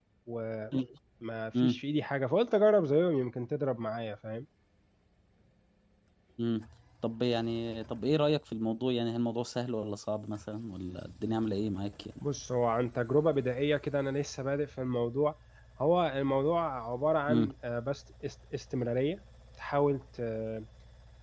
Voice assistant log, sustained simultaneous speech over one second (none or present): none